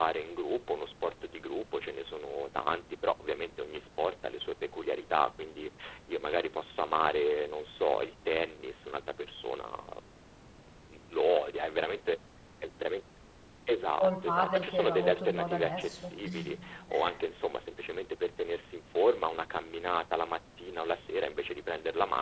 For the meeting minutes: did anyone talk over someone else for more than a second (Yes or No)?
Yes